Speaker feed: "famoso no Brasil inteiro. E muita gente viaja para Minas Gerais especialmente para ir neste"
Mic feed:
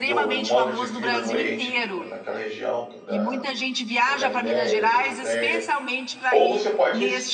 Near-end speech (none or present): present